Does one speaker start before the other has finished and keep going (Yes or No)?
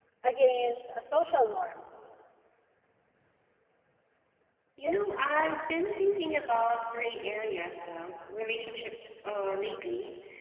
No